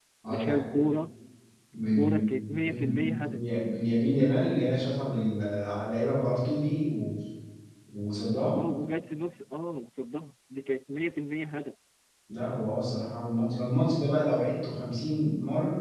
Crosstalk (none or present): present